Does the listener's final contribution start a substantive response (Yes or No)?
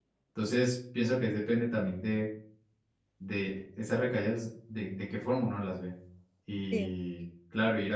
No